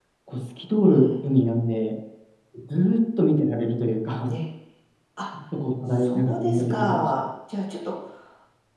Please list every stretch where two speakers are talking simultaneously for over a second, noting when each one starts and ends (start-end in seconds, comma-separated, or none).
5.9-7.3